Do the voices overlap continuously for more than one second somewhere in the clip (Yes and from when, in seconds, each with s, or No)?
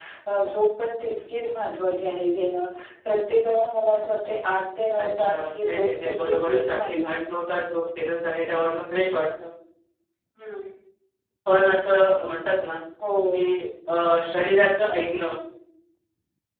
Yes, from 5.0 s